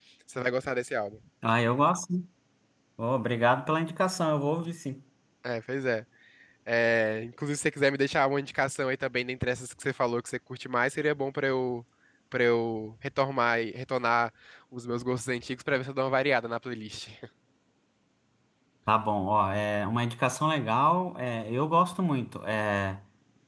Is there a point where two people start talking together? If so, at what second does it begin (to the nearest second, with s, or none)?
none